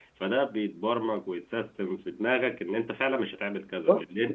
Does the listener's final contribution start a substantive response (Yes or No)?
No